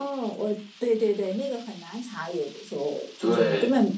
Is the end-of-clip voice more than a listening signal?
No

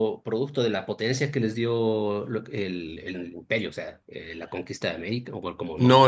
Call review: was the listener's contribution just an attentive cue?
No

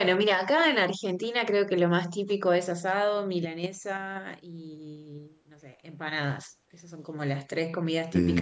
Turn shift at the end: No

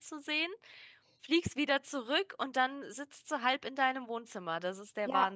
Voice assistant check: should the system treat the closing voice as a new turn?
Yes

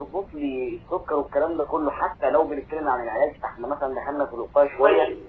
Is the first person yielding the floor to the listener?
Yes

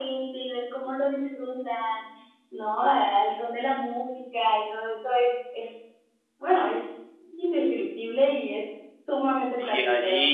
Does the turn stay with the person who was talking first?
No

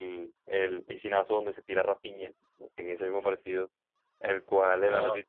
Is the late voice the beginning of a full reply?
No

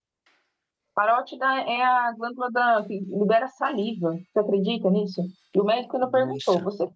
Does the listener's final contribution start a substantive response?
No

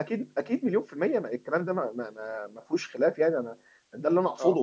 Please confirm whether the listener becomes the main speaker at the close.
No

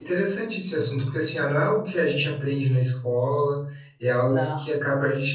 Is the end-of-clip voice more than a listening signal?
No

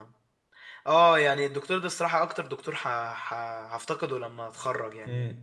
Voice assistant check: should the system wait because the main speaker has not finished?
Yes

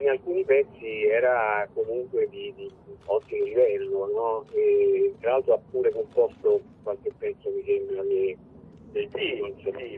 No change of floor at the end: No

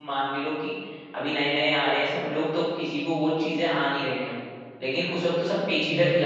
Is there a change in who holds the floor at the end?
No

